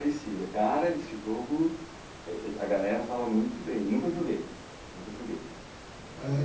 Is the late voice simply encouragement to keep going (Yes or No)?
No